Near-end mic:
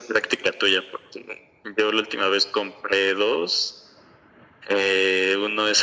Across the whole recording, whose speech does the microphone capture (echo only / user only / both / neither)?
echo only